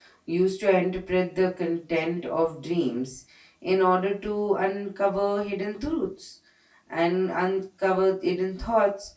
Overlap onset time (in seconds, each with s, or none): none